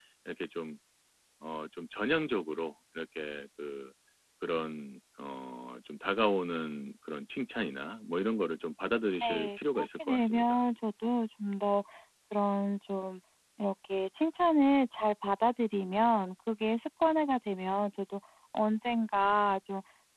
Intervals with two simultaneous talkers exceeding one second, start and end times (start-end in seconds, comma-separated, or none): 9.2-10.4